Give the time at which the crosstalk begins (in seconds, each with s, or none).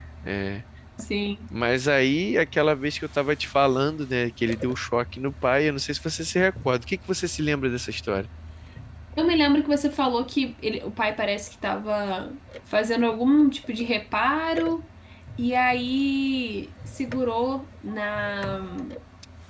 none